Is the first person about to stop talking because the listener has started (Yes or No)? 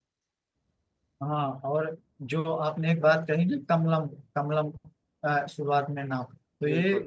No